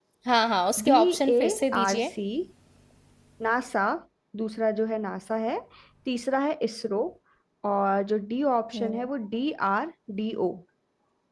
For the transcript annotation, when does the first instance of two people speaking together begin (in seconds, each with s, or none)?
0.9 s